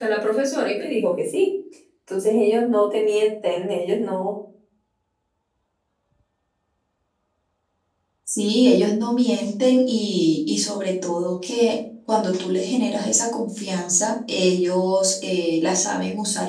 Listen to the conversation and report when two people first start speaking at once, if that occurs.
none

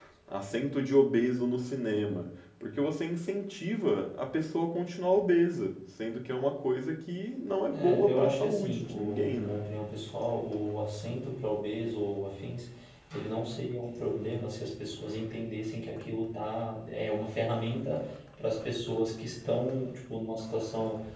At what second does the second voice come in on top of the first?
7.7 s

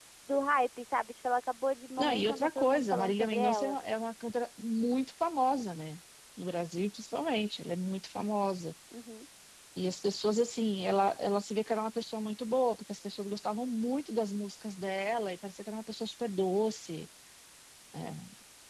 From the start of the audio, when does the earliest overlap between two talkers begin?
2.0 s

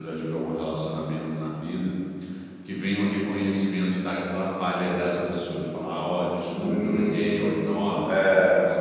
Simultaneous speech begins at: 6.5 s

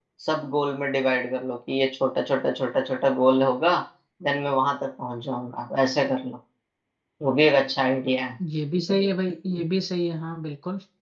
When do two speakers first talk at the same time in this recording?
none

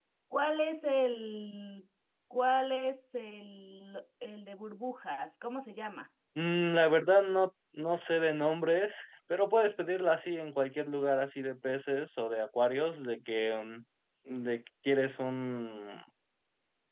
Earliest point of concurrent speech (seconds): none

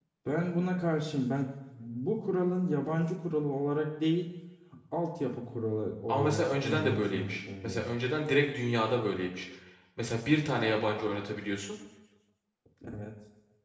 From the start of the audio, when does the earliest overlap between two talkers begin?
6.1 s

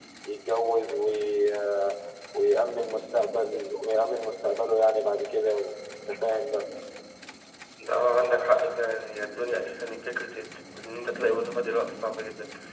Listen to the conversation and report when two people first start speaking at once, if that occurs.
none

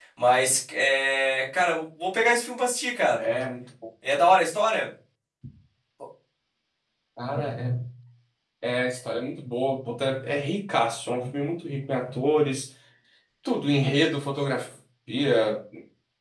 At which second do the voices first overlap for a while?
none

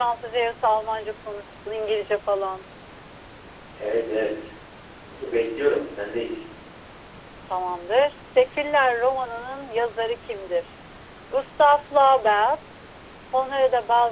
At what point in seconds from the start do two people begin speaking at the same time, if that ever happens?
none

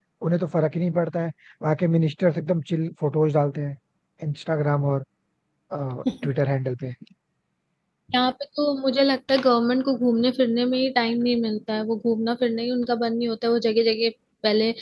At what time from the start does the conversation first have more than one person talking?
none

